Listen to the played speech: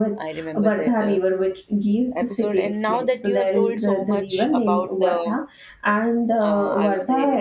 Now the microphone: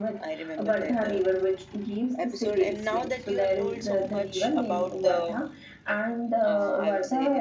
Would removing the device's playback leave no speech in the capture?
Yes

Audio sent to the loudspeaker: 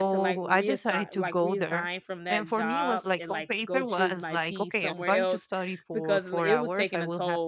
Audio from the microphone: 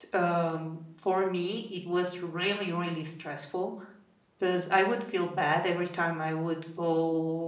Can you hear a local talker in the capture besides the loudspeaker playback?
Yes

